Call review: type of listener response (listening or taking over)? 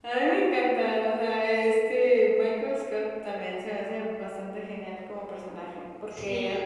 listening